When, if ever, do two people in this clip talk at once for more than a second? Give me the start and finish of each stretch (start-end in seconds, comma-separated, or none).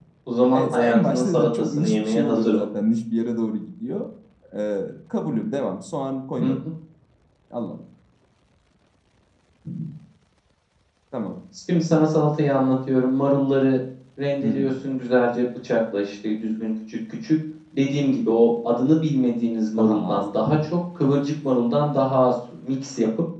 0.5-2.6